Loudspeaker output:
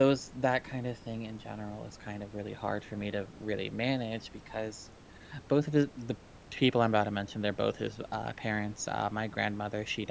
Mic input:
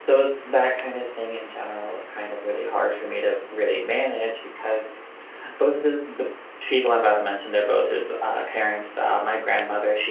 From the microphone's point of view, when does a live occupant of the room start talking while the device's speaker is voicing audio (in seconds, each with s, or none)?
none